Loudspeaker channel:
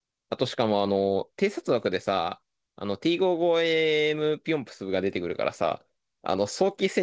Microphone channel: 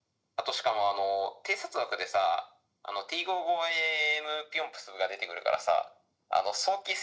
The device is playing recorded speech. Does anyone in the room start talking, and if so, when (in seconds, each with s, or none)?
none